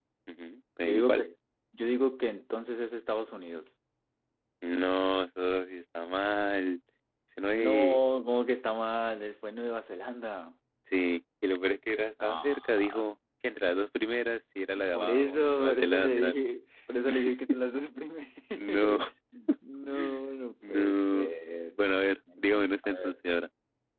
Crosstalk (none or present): present